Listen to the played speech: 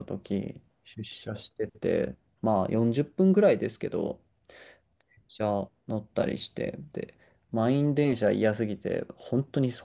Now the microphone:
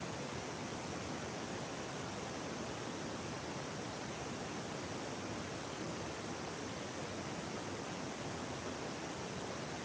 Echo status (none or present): none